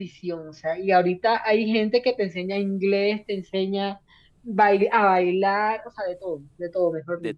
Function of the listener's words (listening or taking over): taking over